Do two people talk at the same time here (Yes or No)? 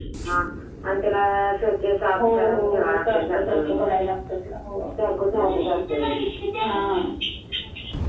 Yes